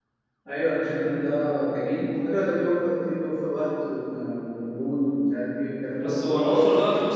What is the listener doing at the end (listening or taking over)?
taking over